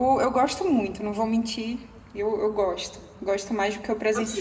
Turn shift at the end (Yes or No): Yes